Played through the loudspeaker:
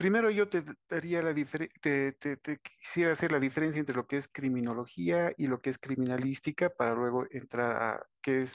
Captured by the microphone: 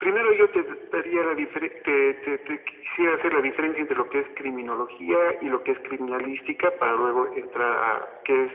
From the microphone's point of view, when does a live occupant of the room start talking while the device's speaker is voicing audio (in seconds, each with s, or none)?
none